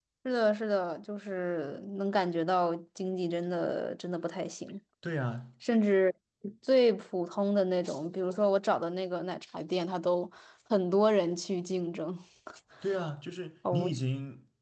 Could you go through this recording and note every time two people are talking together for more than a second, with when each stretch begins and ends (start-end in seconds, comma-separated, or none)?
none